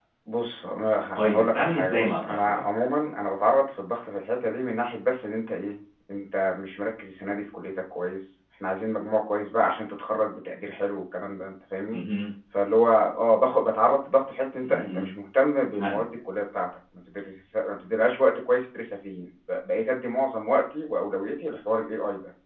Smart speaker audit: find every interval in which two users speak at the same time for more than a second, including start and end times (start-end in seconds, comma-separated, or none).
1.1-2.6